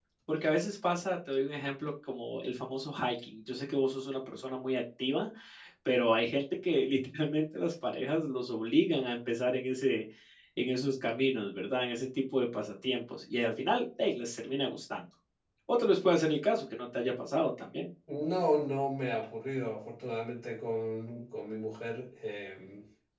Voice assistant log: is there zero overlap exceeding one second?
Yes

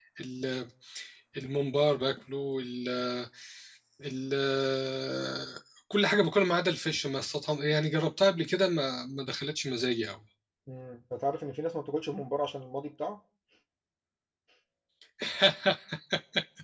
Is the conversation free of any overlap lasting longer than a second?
Yes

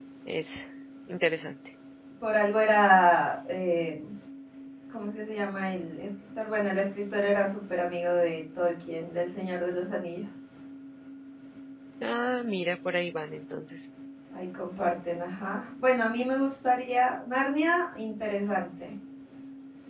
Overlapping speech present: No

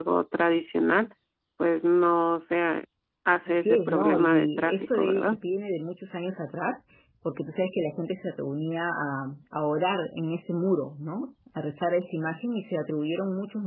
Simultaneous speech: Yes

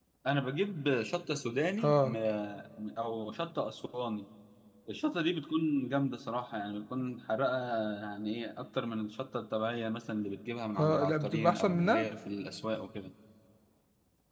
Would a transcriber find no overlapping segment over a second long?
No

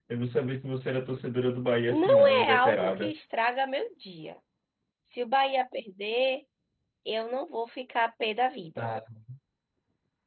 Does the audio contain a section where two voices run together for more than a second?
Yes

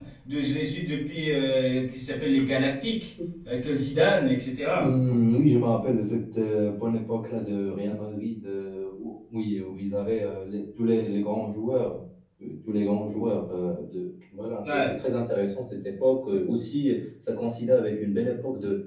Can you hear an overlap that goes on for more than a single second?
No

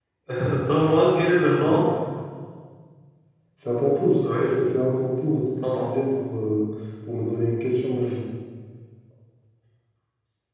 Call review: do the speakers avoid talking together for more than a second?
Yes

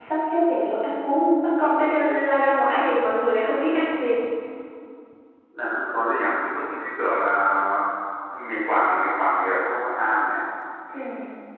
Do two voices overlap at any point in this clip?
No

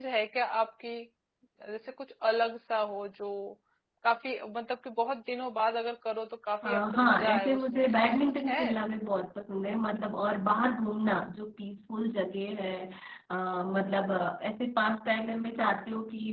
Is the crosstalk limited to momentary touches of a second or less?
No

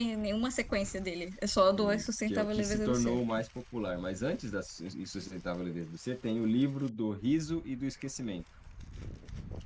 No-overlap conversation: No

